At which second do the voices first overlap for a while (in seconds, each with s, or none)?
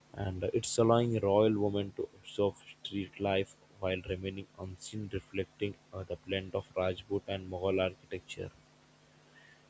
none